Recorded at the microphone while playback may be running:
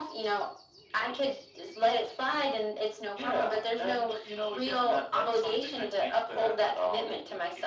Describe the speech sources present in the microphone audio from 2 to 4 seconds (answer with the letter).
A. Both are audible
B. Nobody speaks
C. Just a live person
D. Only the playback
D